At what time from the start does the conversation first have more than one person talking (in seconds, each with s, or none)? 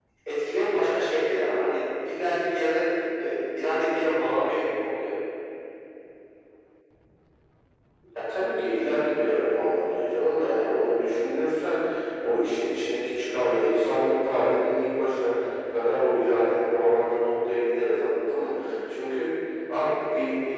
none